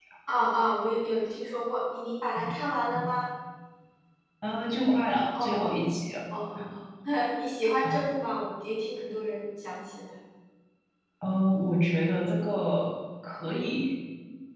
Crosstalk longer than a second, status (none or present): none